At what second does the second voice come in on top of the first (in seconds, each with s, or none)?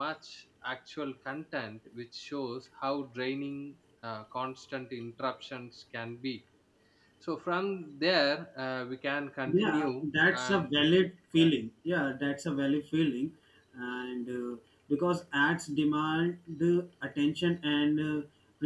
9.5 s